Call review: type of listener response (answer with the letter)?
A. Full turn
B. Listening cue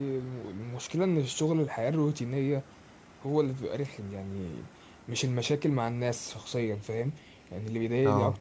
B